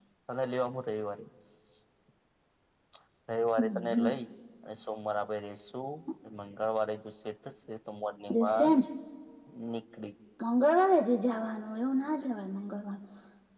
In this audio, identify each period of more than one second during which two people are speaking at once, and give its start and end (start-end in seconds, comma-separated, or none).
none